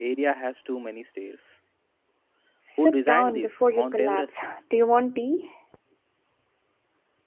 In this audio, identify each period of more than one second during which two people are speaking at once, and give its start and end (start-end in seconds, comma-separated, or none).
2.8-4.5